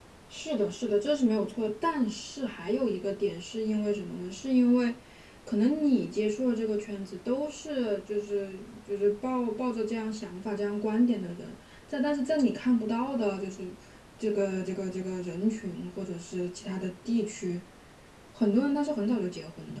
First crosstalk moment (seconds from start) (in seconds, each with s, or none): none